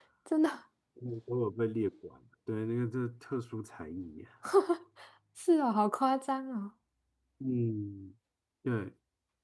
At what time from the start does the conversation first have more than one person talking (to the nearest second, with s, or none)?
none